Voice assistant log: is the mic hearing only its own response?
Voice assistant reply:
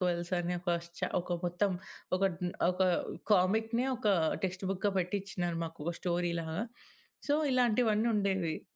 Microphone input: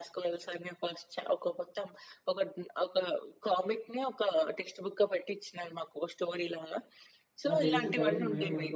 No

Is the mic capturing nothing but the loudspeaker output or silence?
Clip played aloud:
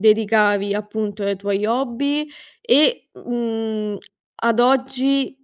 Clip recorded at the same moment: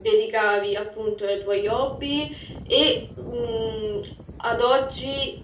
Yes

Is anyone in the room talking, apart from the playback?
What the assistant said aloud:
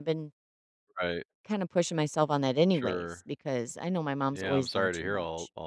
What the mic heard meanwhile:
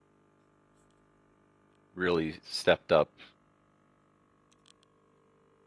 Yes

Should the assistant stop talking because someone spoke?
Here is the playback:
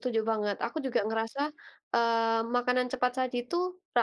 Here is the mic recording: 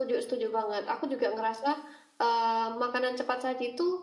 No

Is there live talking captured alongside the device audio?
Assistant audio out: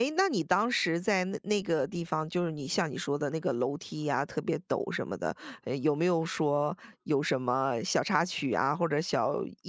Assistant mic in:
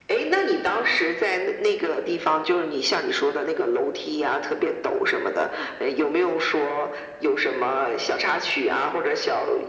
No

